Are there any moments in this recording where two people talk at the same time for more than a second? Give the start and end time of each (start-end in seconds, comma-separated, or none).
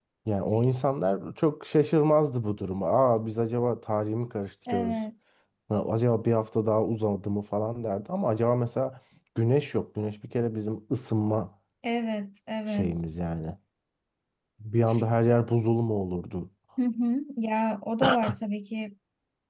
none